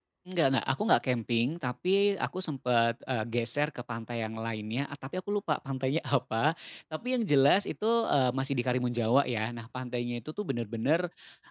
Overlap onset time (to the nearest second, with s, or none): none